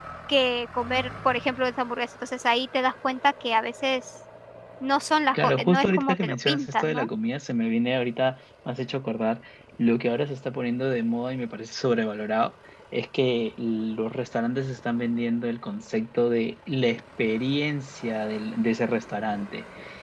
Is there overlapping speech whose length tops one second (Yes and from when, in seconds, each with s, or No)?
Yes, from 5.3 s